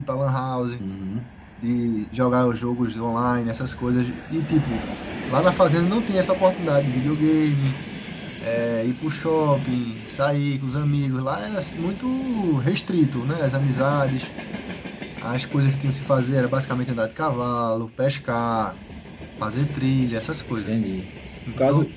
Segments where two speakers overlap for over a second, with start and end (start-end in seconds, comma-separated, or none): none